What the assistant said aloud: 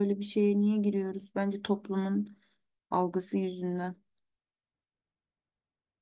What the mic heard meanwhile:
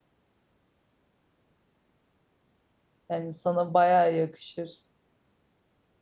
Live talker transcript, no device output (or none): Yani sana bayağı yakışır.